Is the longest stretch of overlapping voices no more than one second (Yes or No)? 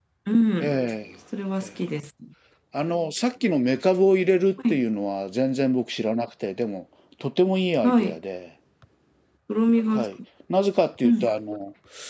Yes